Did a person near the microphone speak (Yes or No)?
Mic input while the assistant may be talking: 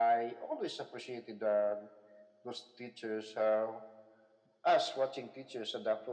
No